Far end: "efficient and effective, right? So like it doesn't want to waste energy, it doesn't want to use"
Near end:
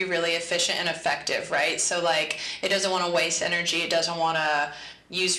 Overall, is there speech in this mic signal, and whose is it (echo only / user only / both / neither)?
echo only